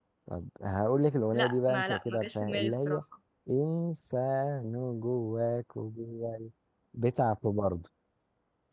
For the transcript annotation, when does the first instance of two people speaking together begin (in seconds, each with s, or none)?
1.3 s